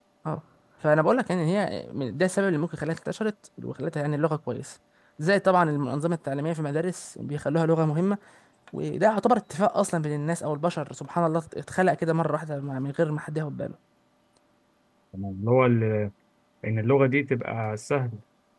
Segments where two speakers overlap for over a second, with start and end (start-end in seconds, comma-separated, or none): none